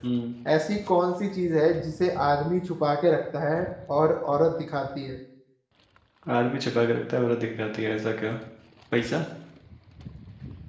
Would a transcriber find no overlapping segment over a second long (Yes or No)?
Yes